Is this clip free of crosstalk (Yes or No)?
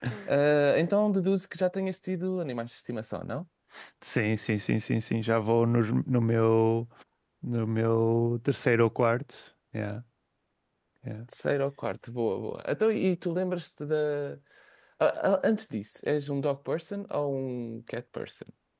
Yes